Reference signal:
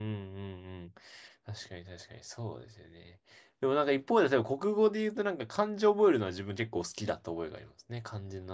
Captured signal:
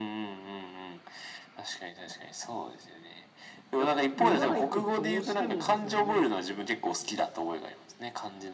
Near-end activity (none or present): present